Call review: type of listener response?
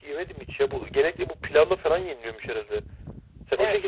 taking over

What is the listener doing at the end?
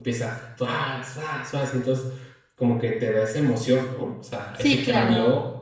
taking over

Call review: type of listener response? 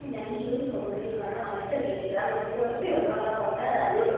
listening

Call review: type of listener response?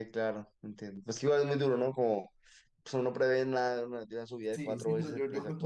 taking over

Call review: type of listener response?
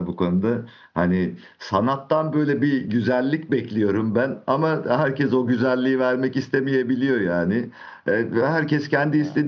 listening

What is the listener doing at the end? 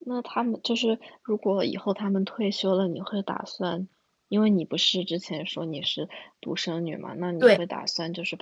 listening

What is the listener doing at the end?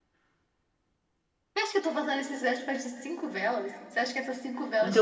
taking over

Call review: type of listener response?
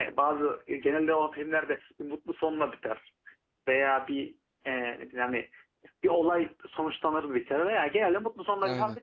listening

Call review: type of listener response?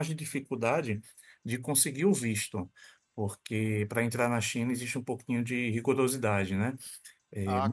taking over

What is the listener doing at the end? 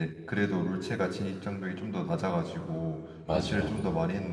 listening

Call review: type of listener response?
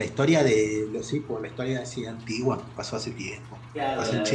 taking over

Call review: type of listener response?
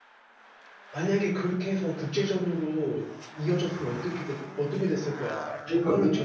taking over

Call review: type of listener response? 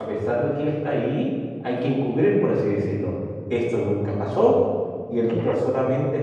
listening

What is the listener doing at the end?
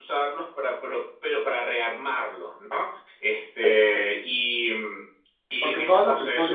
taking over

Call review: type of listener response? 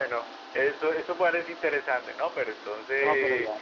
taking over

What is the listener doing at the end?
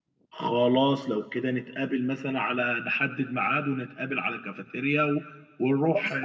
taking over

